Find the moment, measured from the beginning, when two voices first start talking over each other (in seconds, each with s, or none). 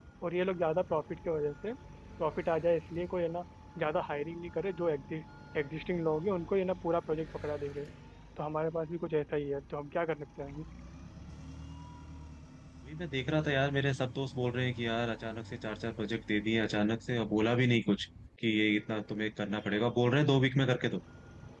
none